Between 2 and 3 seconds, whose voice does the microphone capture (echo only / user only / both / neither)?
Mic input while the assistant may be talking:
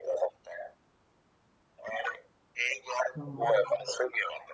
echo only